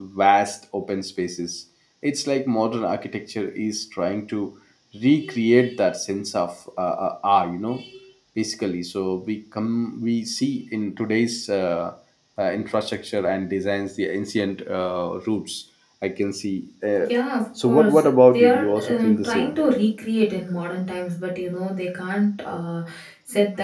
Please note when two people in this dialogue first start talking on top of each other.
17.6 s

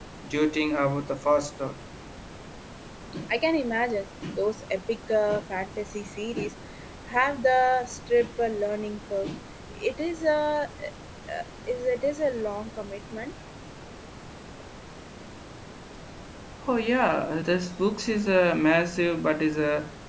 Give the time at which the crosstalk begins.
none

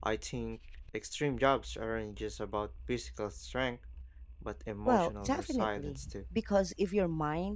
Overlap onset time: 4.8 s

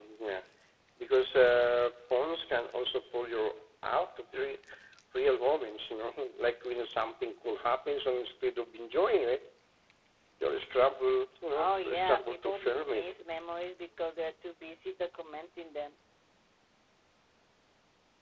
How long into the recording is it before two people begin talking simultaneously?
11.5 s

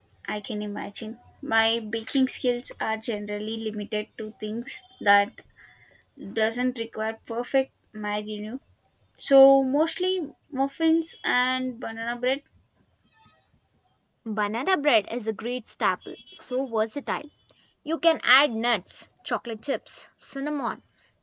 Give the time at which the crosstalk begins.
none

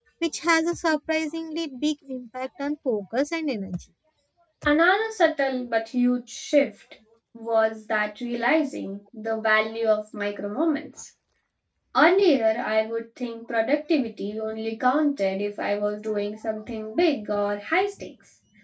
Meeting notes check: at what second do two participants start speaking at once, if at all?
none

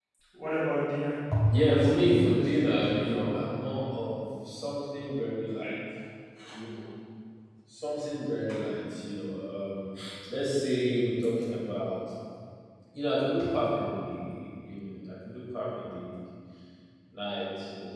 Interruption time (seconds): 1.3 s

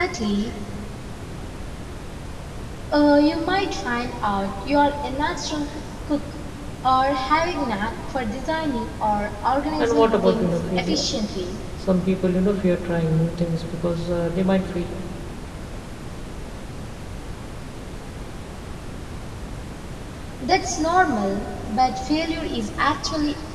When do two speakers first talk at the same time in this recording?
9.8 s

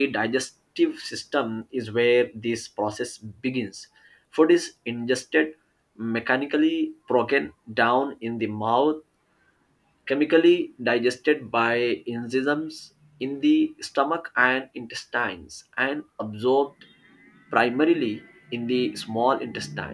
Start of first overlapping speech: none

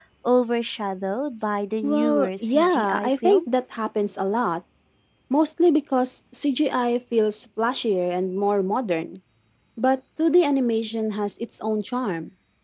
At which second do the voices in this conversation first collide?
1.8 s

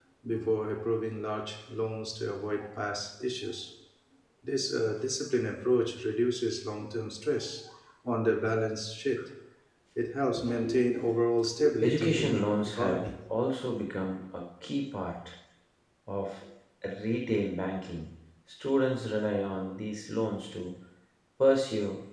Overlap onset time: 11.8 s

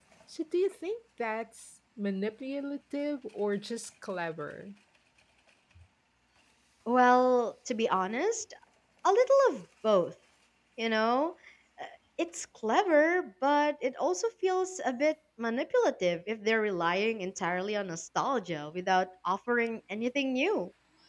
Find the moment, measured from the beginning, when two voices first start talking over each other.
none

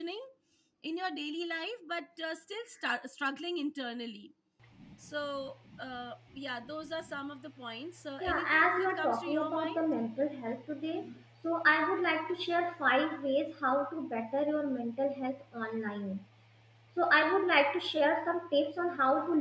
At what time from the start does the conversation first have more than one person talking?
8.2 s

